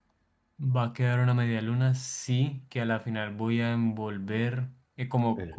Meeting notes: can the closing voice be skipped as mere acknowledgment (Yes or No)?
Yes